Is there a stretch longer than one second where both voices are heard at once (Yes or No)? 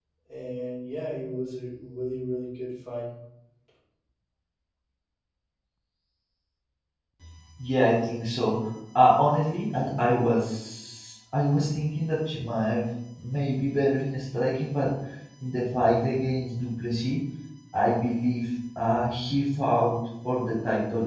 No